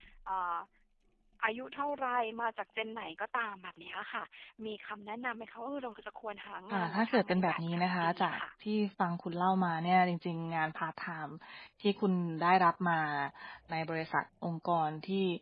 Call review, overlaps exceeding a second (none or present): present